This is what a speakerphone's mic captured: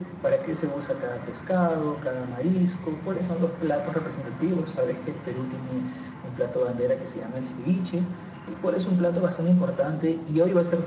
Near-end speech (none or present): none